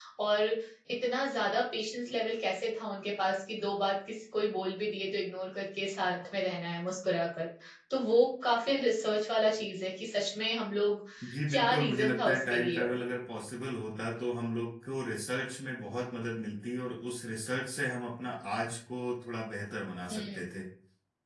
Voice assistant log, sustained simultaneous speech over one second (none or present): present